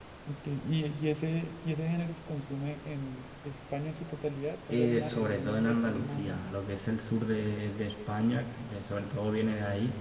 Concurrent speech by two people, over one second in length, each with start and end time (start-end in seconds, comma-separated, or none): 4.7-6.5